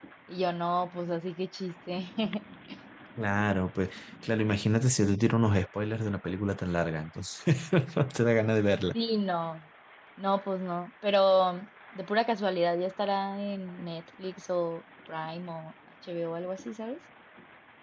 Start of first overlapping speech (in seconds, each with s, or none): none